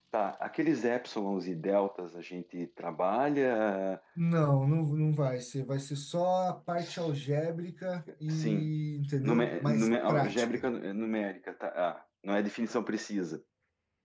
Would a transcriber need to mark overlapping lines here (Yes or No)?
Yes